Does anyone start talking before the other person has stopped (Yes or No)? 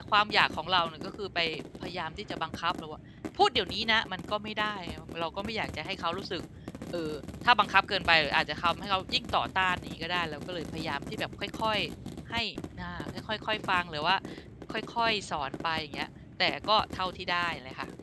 No